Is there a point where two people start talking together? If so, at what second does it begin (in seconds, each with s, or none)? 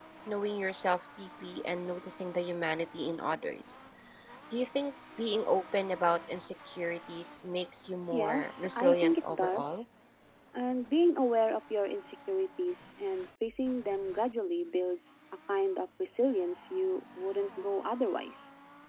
8.1 s